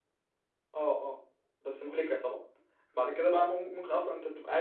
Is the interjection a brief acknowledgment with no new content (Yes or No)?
Yes